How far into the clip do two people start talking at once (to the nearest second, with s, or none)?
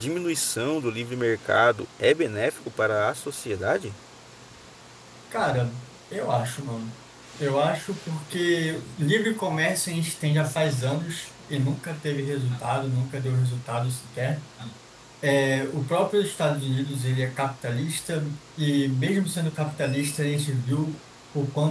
none